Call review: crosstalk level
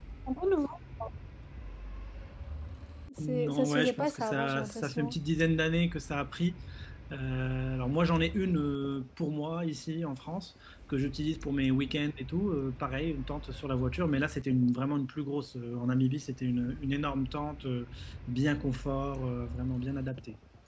present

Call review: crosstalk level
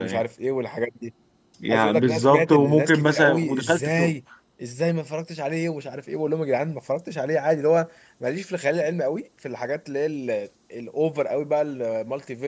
present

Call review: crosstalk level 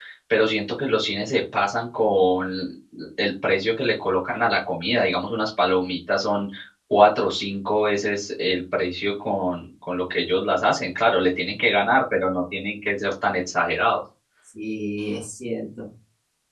none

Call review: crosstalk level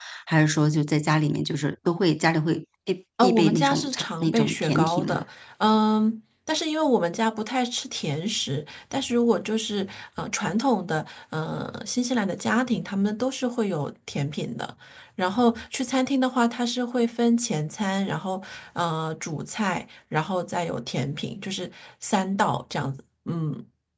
present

